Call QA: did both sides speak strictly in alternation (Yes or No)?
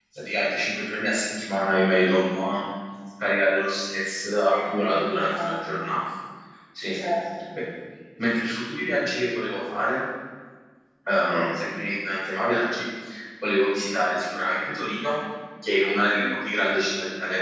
No